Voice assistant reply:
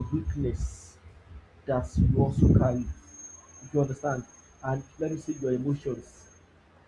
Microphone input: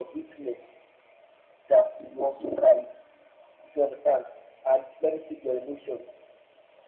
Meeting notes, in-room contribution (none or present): none